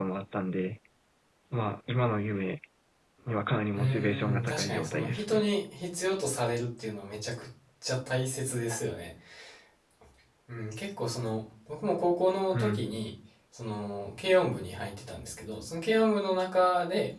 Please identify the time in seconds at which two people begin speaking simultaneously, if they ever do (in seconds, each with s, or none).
3.8 s